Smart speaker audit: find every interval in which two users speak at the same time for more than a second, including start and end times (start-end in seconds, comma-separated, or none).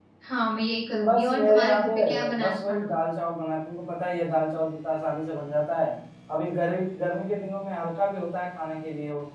1.0-2.8